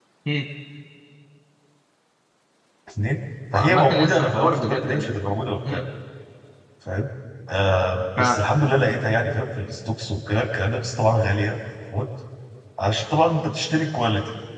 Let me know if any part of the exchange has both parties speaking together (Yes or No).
Yes